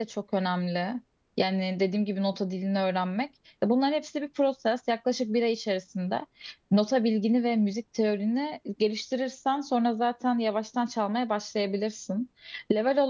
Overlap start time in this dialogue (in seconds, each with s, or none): none